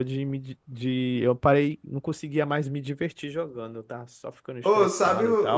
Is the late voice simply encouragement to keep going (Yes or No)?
No